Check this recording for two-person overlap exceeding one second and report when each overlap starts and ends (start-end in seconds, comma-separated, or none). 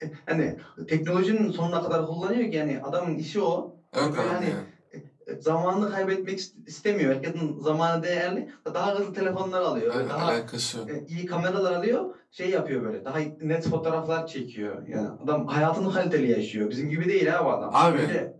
none